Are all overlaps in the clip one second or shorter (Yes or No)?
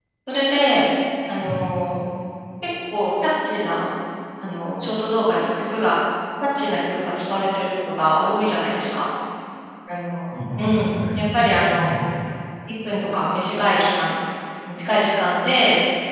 No